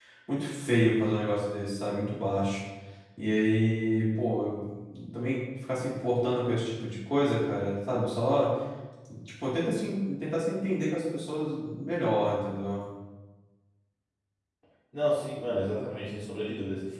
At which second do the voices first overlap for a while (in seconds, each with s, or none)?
none